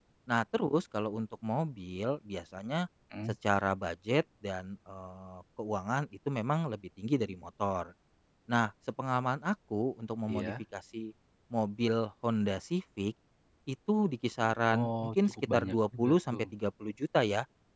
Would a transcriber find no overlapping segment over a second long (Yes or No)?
No